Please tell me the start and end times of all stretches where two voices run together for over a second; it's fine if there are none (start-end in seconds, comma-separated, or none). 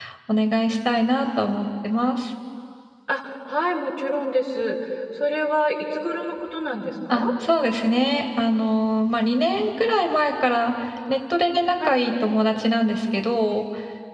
none